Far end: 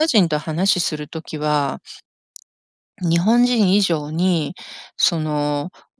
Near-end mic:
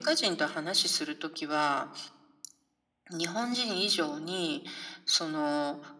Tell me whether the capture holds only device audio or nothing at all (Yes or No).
Yes